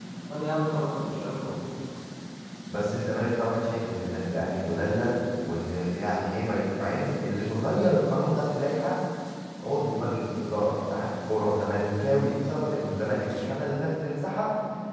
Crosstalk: none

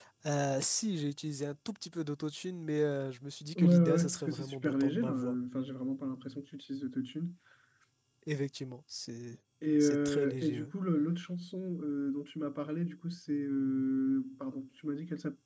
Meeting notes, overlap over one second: present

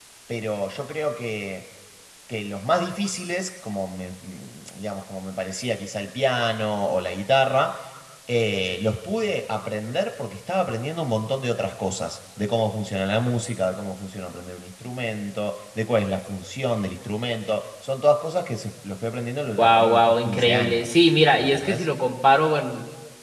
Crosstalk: present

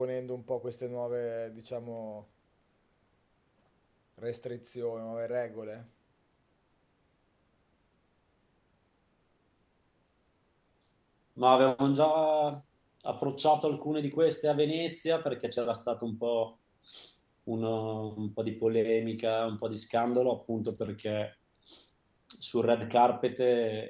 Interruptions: none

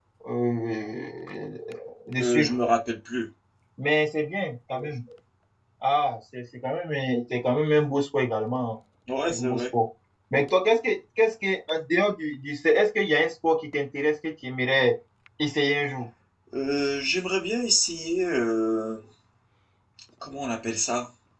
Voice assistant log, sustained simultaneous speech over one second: none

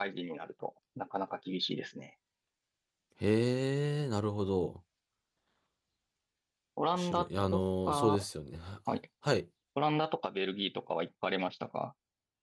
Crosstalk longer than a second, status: present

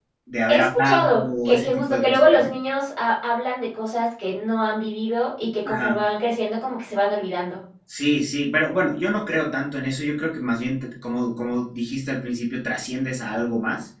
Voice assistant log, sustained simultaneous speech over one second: present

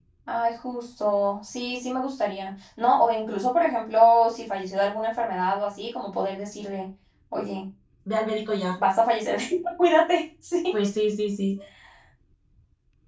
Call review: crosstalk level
none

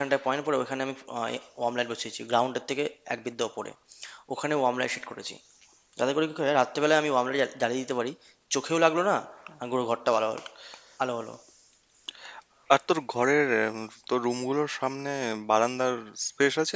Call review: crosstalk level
none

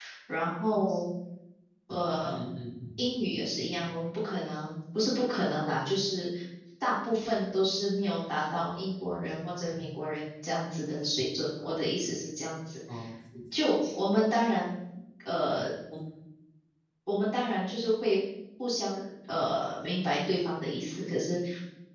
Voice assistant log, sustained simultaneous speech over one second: none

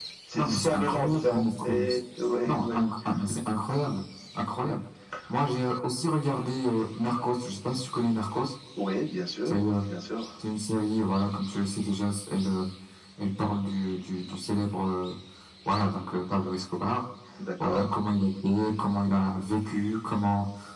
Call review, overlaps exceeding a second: present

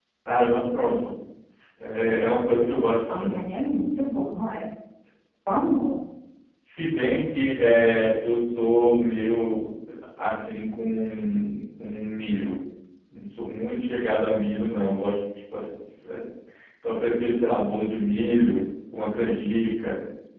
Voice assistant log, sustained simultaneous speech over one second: none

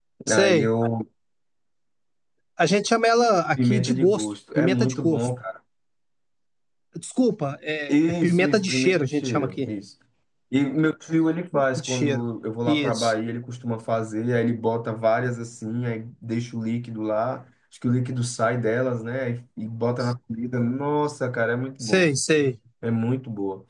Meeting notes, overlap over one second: present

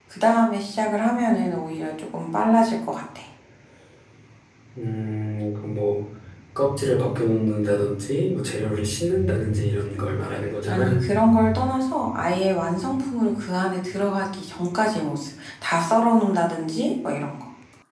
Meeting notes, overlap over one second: none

